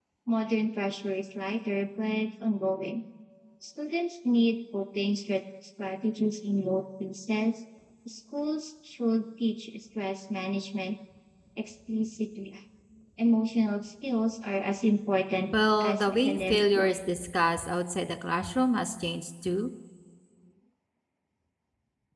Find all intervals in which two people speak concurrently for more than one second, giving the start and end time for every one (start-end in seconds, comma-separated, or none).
15.5-17.0